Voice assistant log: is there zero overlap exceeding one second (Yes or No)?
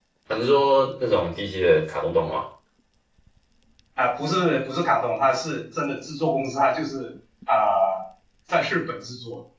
Yes